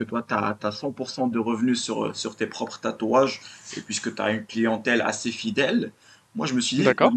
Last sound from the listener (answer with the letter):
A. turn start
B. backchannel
B